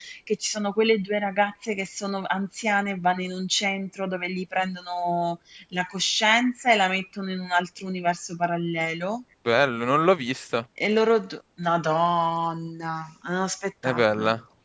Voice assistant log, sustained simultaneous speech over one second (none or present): none